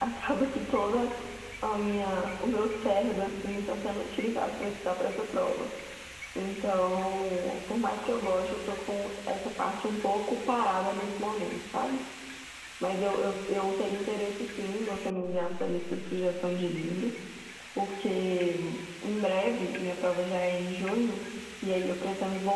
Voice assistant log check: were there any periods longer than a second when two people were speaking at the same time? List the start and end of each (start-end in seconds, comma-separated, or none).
none